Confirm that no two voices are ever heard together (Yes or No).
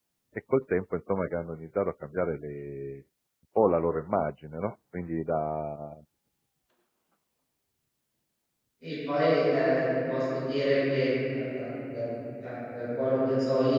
Yes